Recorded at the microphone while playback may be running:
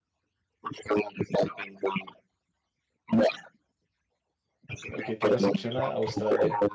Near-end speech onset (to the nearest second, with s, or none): 5 s